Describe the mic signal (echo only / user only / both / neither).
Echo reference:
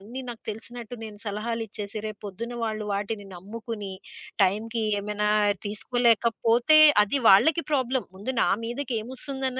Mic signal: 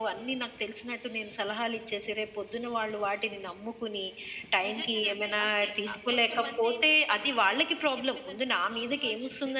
both